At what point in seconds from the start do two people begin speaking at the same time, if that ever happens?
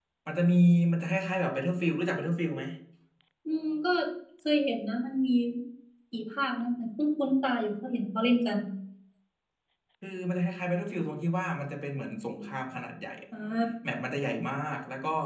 none

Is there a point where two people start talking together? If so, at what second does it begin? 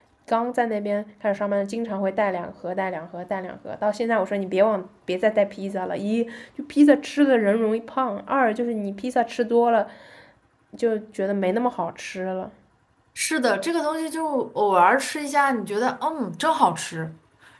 none

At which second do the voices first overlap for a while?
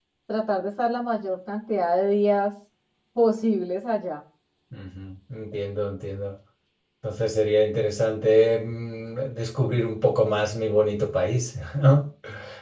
none

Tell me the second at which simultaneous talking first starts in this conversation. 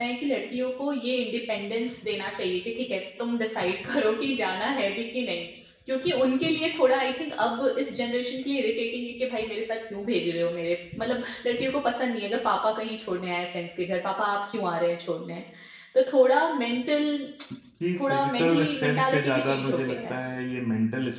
18.0 s

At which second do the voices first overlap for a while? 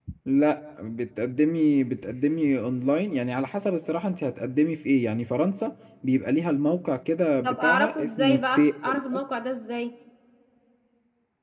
7.4 s

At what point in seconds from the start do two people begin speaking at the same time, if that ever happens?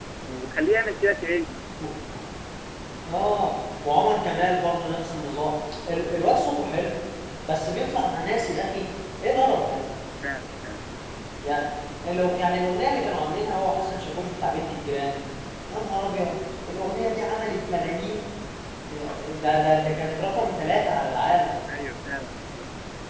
none

